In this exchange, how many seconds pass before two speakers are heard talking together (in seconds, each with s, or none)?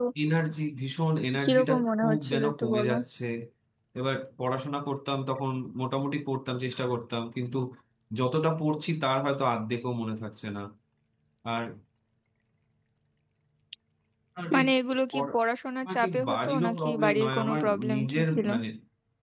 1.4 s